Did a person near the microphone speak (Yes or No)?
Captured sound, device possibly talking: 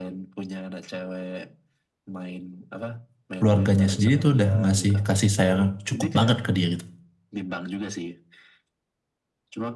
Yes